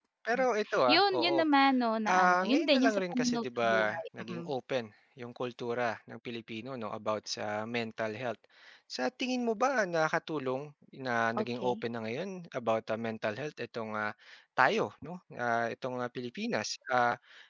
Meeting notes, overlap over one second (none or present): present